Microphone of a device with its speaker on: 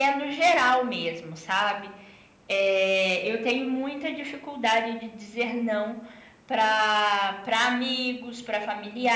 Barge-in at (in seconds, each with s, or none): none